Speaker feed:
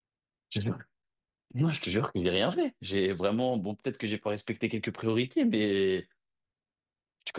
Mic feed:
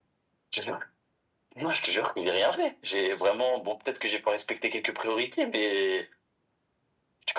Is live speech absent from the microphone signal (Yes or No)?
Yes